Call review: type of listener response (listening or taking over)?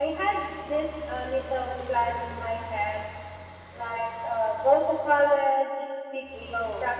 listening